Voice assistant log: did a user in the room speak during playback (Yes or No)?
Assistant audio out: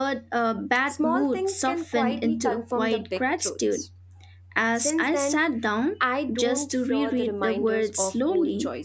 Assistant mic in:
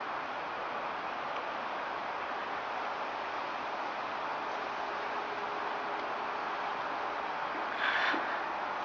No